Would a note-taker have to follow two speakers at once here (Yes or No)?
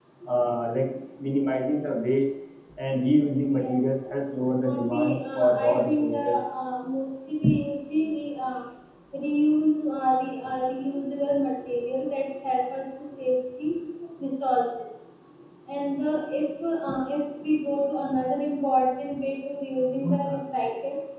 Yes